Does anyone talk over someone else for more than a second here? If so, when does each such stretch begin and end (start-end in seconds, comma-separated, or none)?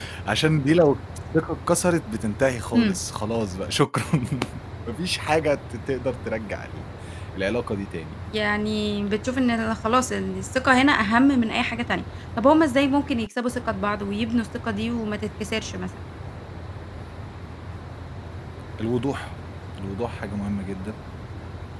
none